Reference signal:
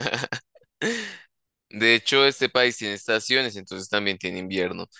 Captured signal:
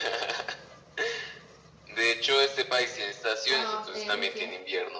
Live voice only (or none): Ah, eh, Rusia.